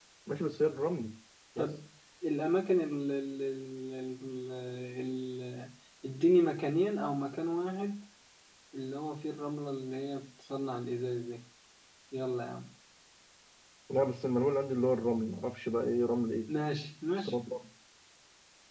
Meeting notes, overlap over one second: none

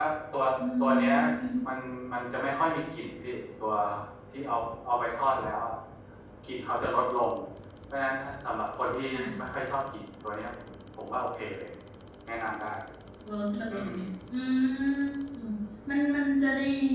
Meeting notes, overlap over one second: none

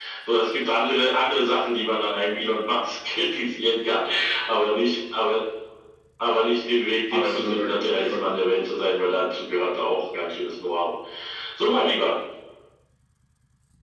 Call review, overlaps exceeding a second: present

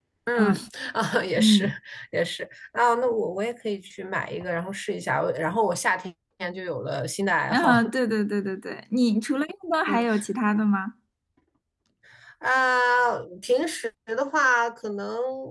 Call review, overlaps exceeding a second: none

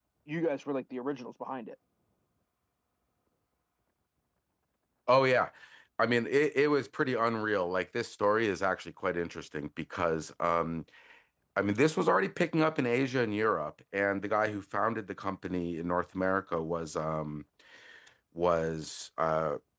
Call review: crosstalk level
none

